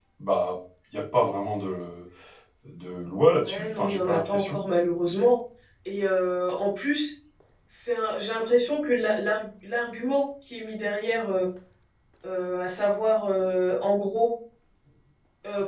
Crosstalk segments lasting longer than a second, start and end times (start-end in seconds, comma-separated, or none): 3.4-4.6